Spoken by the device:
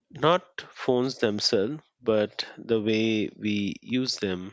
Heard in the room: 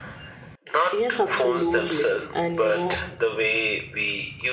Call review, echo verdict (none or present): present